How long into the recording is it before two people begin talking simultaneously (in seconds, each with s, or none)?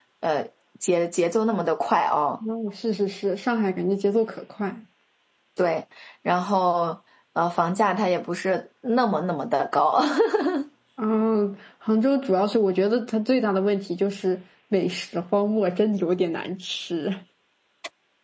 none